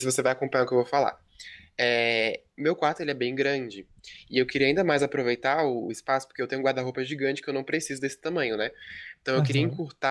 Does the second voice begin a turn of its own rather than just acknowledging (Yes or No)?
No